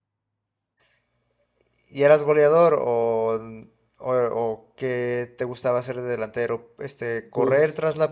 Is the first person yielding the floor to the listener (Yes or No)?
No